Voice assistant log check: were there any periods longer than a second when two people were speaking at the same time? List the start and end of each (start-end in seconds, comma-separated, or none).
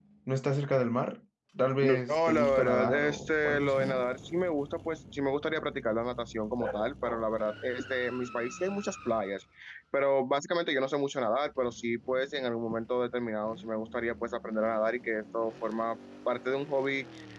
1.8-4.0